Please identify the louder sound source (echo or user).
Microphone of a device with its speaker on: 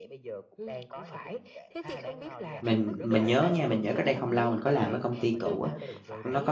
user